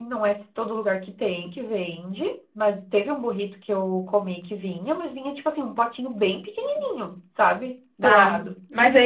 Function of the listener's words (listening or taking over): taking over